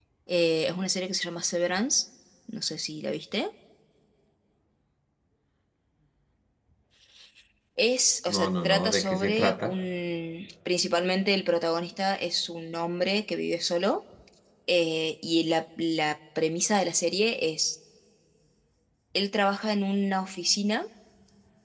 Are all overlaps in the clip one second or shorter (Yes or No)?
No